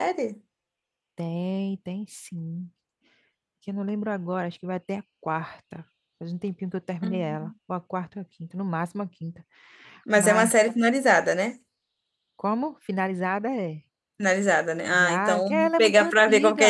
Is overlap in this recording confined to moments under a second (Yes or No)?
No